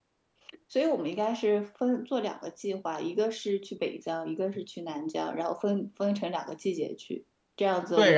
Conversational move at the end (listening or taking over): taking over